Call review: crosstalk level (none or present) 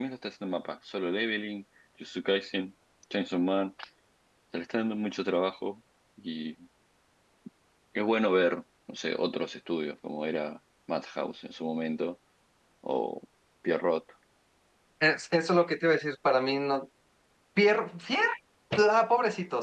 none